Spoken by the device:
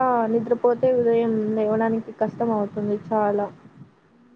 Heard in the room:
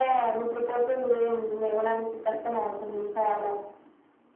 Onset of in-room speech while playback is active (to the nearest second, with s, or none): none